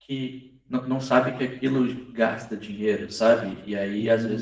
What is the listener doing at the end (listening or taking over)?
taking over